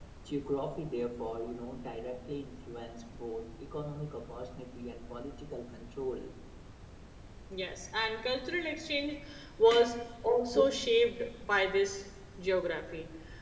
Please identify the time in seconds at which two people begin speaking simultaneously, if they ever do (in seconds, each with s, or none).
none